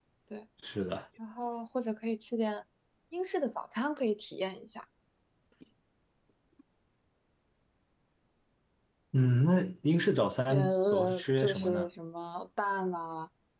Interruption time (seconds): 10.5 s

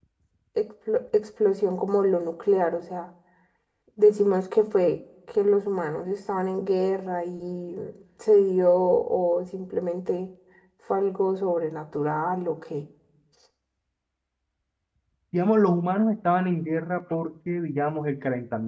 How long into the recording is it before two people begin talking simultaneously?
none

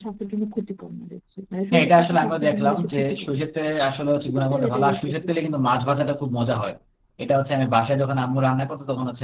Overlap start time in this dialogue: 1.7 s

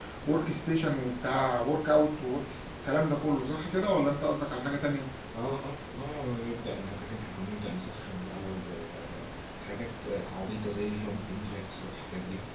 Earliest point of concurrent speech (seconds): none

